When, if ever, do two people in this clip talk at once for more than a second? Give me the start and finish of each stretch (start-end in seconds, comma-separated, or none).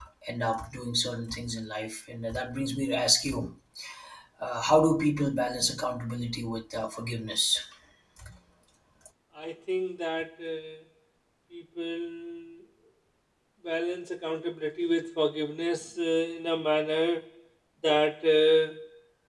none